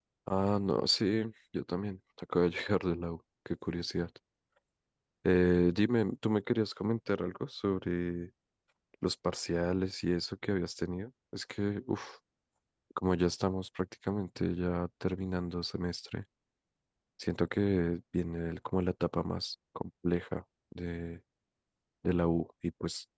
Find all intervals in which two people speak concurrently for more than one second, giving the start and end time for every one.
none

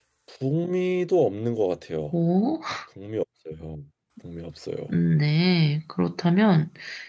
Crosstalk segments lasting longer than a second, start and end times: none

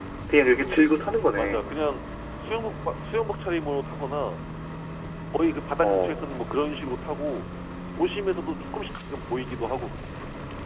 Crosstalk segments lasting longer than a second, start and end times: none

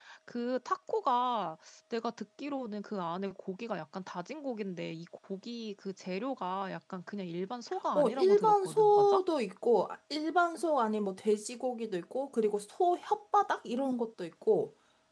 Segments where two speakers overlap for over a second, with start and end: 7.9-9.2

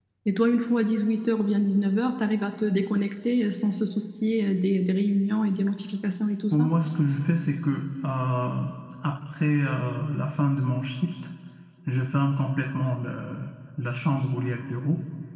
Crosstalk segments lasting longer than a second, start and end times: none

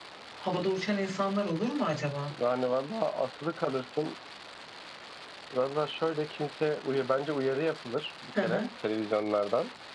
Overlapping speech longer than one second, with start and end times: none

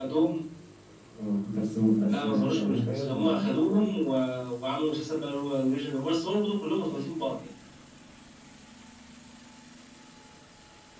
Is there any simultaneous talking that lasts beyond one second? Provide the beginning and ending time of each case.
2.1-4.0

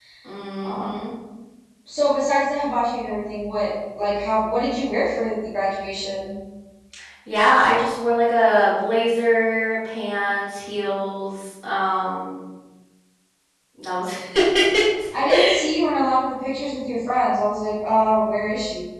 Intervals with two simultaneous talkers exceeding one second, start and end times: none

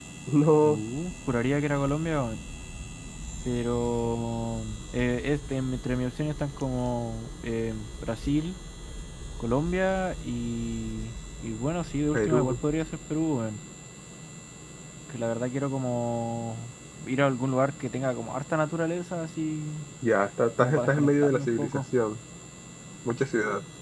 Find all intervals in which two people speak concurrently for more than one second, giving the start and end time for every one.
20.6-21.8

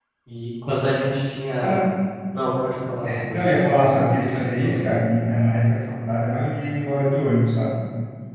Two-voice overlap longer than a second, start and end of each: 3.3-4.9

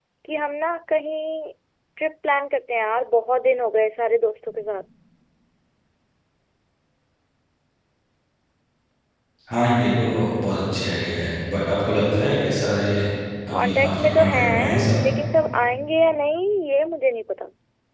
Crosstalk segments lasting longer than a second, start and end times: 13.5-15.0

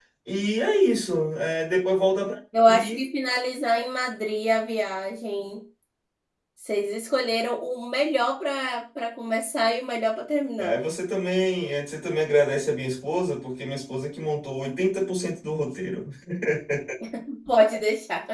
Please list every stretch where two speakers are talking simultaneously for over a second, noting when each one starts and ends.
none

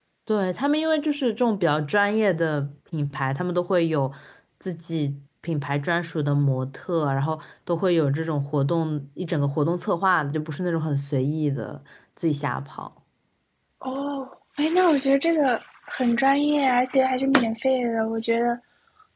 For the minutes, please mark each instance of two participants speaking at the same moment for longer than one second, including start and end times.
none

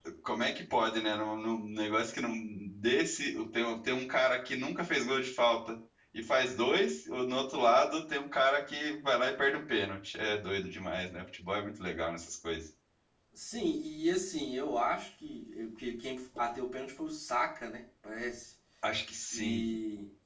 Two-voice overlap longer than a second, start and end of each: none

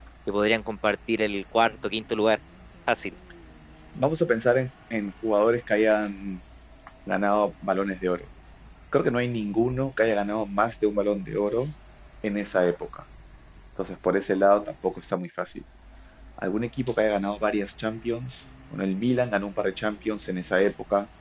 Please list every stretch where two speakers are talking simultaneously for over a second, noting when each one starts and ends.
none

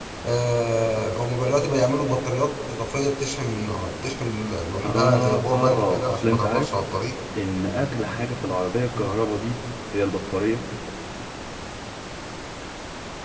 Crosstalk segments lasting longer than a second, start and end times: 4.8-6.7

